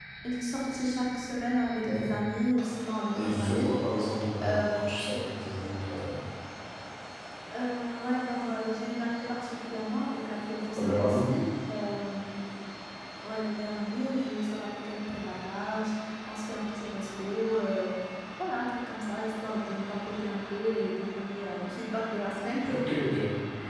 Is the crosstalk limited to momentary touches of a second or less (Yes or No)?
Yes